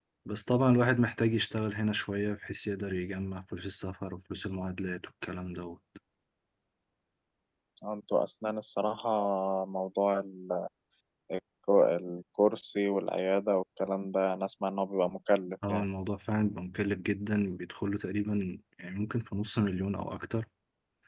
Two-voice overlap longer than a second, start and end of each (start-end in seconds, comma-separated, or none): none